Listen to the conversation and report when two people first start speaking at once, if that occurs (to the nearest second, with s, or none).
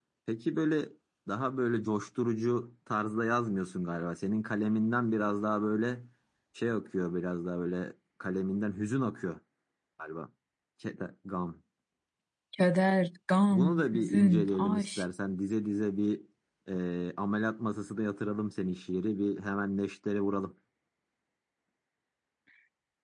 13 s